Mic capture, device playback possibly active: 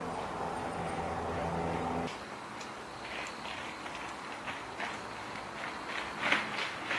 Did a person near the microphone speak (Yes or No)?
No